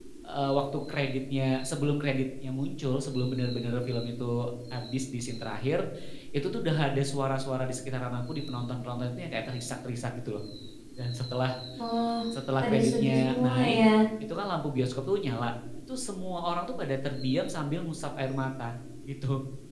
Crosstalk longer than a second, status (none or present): present